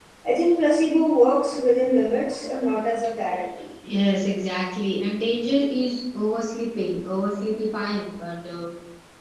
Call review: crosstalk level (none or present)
none